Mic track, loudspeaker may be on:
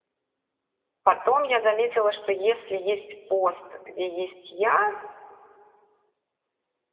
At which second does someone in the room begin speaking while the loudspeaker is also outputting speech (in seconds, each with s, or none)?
1.0 s